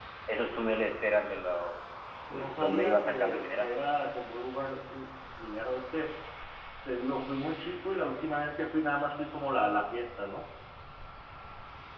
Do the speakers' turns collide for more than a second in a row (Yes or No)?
Yes